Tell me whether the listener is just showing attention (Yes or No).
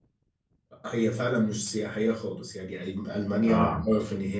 Yes